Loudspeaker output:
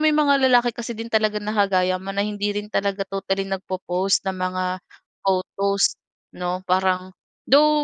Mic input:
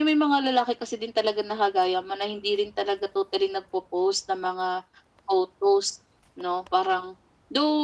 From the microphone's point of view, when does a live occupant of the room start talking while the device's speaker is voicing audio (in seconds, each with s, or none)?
none